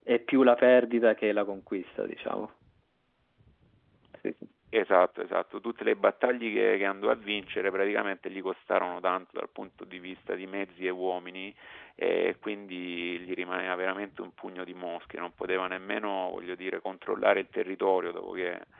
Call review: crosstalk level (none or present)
none